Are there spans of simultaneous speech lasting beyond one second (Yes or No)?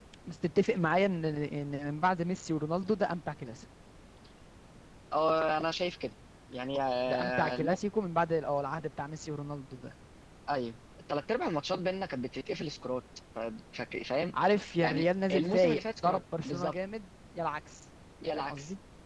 Yes